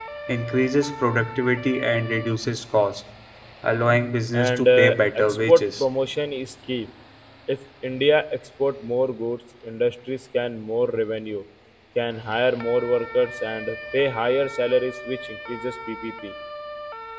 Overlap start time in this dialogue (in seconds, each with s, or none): 4.3 s